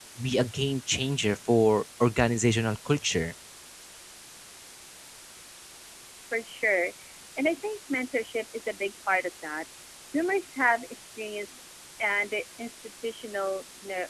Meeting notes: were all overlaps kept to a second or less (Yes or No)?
Yes